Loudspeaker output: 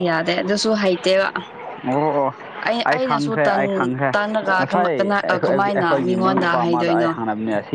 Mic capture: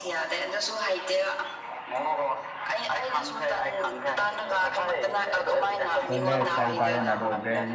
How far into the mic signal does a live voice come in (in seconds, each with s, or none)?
6.1 s